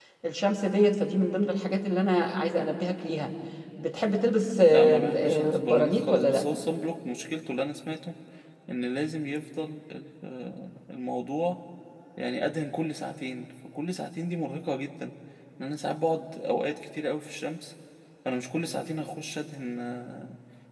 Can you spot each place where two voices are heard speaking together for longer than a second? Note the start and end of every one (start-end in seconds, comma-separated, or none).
4.7-6.4